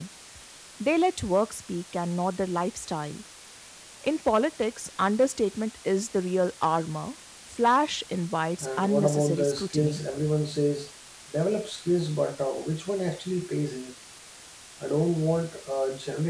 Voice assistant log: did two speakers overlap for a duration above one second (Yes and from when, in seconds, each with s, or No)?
Yes, from 8.6 s